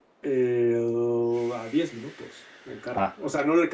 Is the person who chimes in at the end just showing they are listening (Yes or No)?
Yes